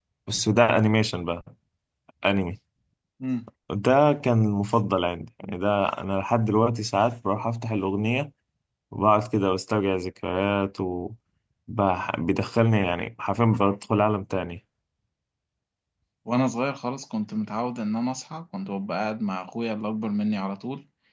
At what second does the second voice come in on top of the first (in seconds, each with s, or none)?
none